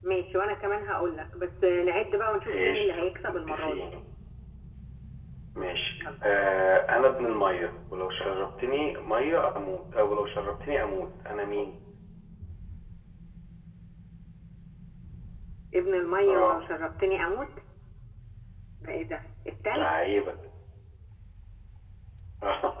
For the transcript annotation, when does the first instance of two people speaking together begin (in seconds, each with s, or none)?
2.5 s